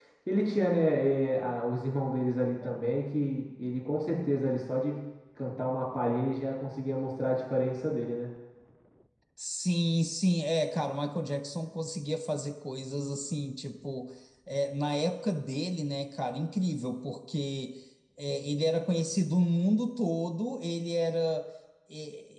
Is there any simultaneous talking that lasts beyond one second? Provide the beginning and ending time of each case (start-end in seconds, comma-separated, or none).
none